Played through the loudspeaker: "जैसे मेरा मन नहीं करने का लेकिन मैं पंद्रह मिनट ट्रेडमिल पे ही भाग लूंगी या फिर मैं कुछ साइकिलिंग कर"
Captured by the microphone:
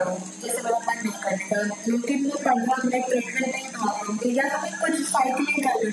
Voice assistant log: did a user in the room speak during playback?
No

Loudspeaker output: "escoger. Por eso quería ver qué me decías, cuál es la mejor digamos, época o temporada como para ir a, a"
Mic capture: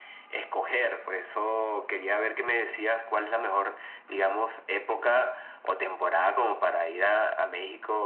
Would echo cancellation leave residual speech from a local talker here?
No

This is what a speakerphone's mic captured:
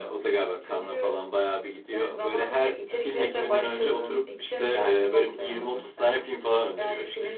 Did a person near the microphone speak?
No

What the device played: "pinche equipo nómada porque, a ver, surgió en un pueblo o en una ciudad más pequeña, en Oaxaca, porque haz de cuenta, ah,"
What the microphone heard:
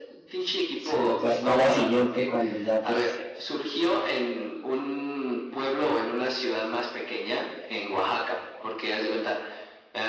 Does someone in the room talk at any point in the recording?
Yes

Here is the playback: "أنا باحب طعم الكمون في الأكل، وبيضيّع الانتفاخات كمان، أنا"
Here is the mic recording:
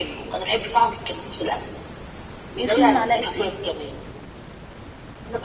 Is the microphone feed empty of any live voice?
No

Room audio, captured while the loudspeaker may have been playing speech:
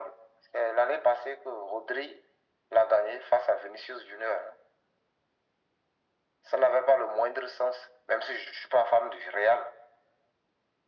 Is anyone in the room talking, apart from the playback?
No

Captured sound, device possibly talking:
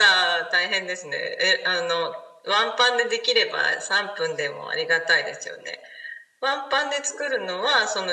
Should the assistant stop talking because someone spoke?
No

